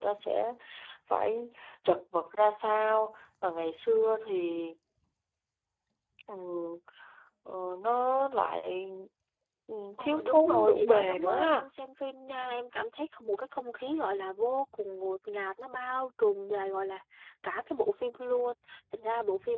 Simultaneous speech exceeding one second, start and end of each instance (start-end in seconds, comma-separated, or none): 10.0-11.7